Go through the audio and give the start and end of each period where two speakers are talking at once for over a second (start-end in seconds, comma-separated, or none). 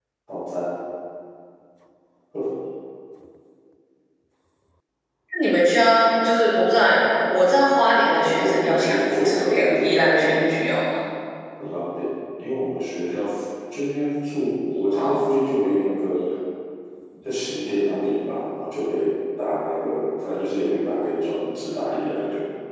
8.2-10.3